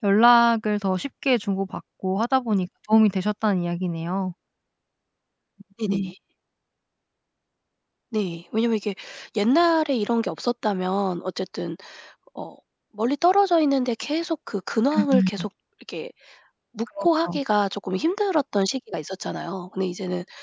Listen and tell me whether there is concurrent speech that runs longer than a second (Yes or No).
No